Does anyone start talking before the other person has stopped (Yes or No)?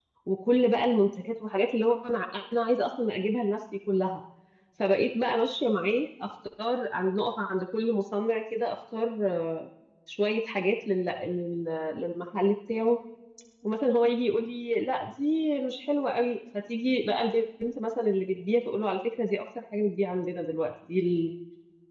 No